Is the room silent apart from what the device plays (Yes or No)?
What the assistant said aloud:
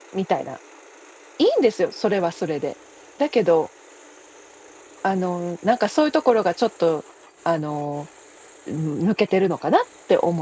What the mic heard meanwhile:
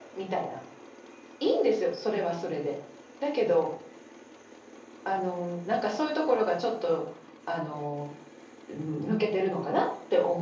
Yes